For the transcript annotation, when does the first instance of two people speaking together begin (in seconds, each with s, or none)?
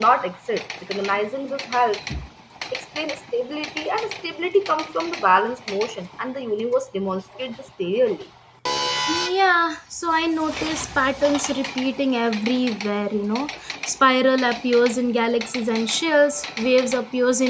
none